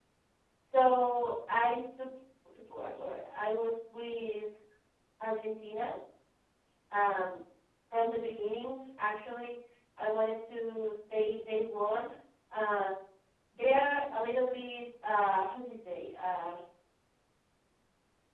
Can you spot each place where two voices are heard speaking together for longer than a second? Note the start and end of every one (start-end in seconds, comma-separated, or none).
none